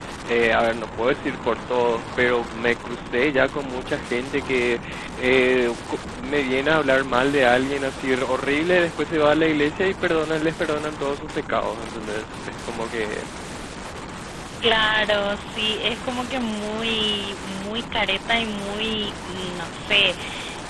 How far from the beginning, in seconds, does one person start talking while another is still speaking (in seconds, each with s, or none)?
none